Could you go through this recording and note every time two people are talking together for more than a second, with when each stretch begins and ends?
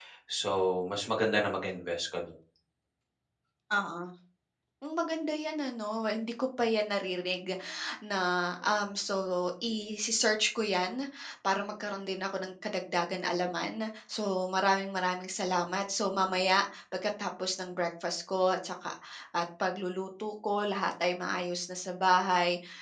none

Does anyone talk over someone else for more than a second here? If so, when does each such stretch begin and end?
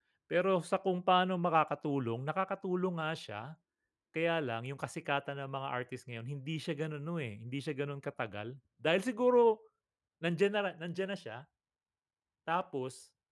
none

